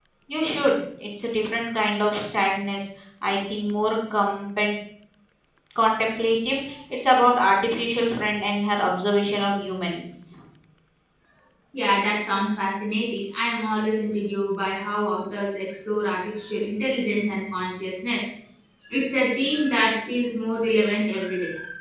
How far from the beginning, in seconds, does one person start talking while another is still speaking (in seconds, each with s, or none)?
none